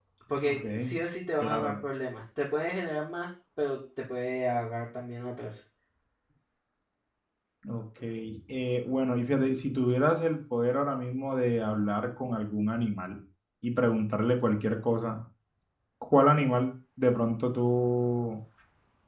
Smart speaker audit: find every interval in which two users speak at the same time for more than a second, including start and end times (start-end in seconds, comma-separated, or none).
none